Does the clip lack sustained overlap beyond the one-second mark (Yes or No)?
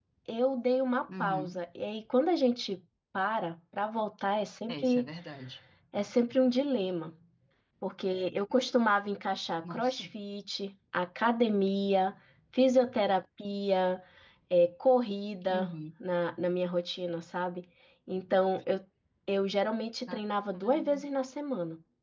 Yes